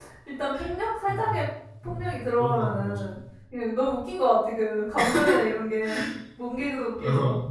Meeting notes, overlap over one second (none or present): present